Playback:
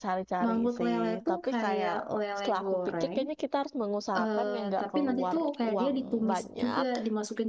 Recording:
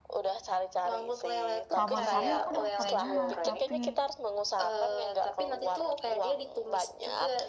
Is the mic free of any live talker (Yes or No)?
No